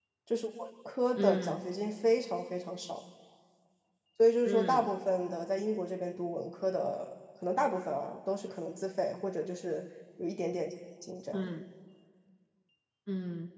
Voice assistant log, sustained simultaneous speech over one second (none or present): none